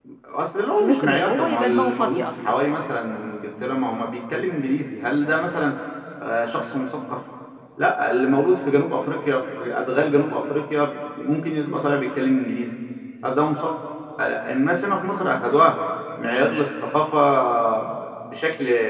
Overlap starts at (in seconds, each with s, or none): 0.8 s